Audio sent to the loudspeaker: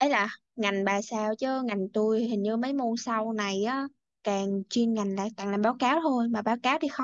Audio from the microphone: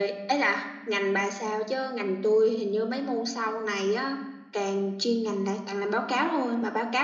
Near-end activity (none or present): none